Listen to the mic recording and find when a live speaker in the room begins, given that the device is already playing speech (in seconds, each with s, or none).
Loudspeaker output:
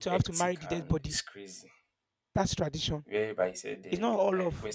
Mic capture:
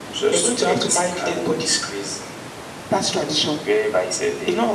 none